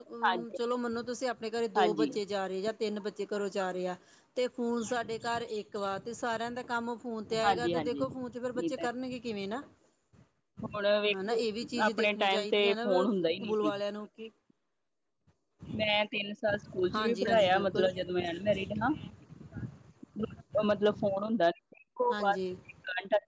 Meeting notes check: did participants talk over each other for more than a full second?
Yes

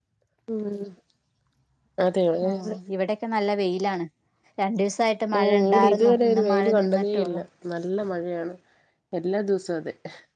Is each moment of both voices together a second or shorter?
No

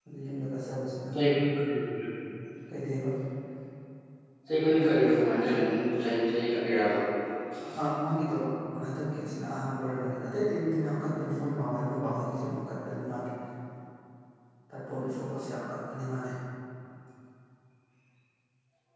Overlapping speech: No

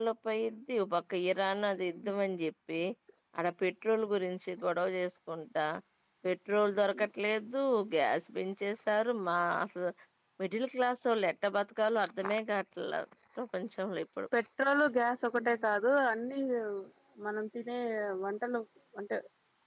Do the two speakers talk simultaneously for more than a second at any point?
No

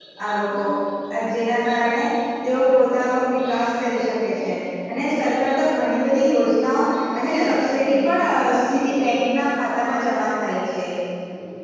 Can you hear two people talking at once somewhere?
No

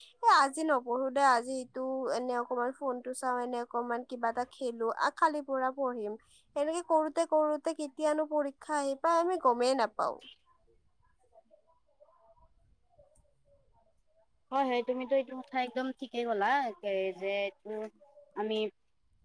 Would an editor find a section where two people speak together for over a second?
No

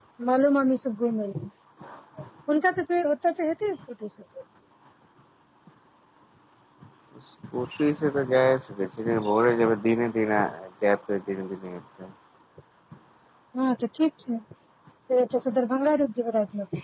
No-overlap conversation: Yes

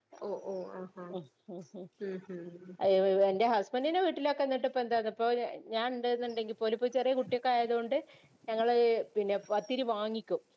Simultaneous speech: No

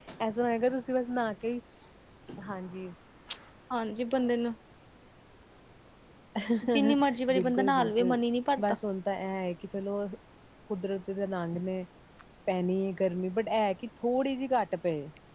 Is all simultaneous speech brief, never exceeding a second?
No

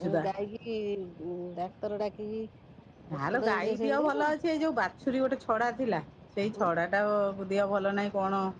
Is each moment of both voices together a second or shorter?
No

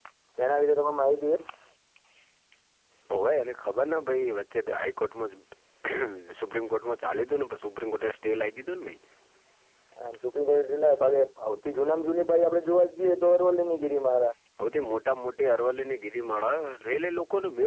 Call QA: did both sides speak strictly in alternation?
Yes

